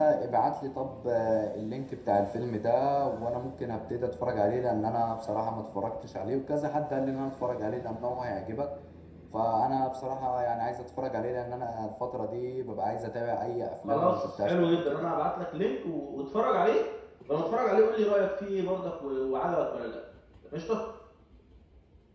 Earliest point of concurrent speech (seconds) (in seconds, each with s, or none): 13.8 s